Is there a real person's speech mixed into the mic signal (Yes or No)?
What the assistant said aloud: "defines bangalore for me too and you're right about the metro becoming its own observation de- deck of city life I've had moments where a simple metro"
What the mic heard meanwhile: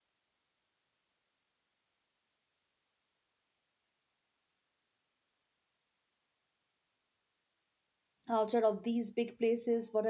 Yes